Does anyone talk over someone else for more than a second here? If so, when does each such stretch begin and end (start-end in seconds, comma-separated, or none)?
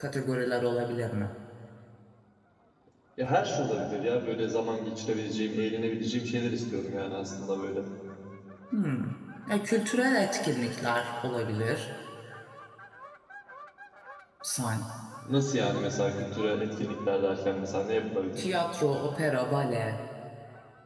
none